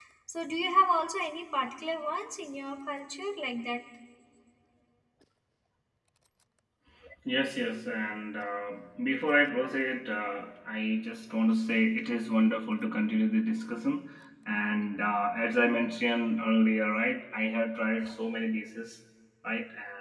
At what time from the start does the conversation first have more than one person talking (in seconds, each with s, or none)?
none